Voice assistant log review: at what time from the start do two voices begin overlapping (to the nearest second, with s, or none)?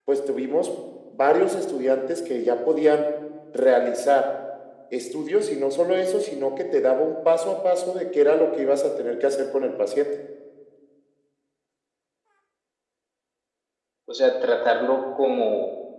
none